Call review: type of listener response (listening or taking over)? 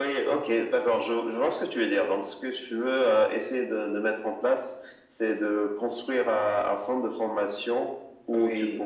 listening